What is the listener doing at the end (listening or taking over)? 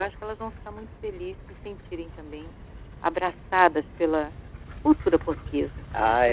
taking over